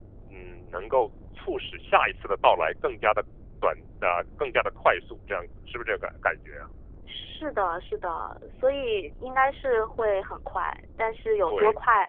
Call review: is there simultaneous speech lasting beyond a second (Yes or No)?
No